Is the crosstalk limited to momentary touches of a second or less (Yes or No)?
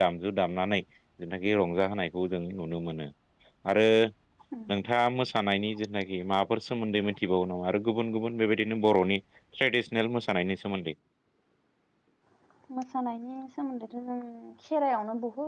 Yes